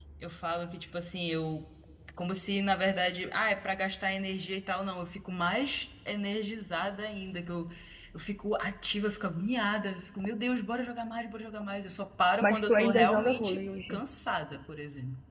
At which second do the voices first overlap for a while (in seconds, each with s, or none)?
12.4 s